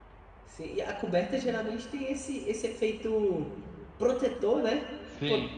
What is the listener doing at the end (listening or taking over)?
listening